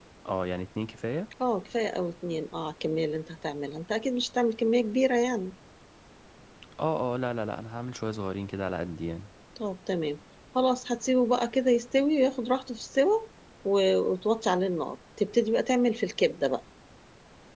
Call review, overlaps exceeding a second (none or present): none